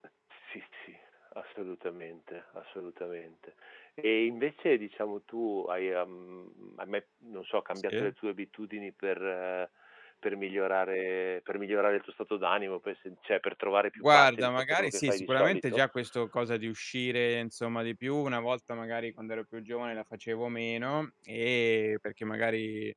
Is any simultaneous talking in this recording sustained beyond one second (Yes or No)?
Yes